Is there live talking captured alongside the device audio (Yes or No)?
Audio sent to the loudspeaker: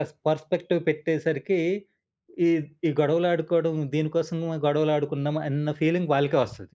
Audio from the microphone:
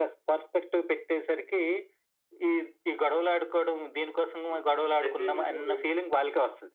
Yes